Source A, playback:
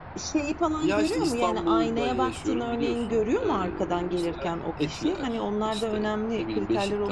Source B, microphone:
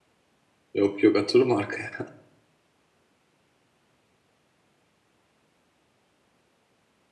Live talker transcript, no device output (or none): yok yok atırım arkaya